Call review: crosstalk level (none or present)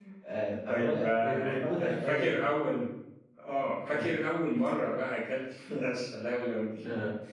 present